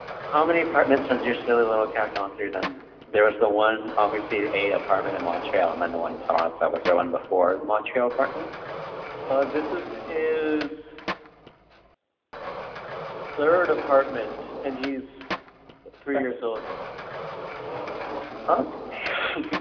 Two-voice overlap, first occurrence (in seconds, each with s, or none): none